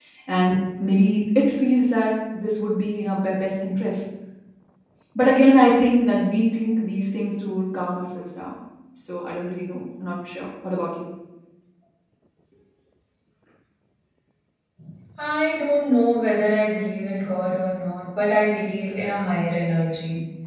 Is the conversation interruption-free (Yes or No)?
Yes